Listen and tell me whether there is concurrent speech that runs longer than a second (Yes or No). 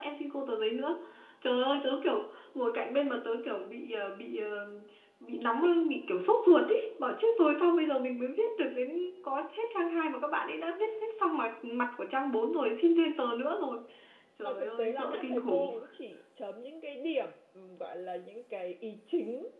Yes